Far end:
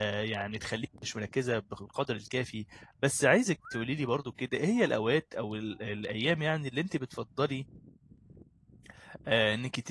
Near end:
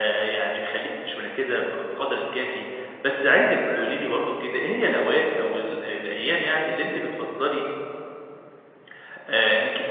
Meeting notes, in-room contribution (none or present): none